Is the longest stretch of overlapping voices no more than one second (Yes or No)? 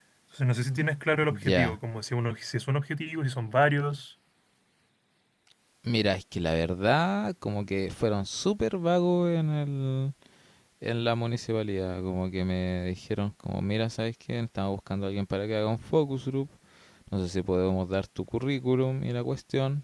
Yes